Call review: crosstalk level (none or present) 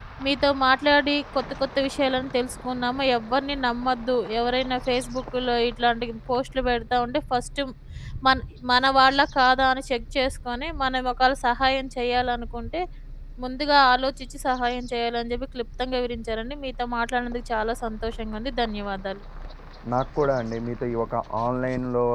none